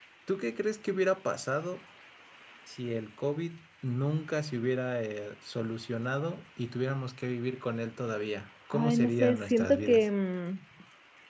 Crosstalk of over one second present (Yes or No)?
Yes